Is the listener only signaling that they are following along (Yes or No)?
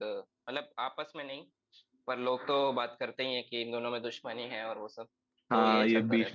No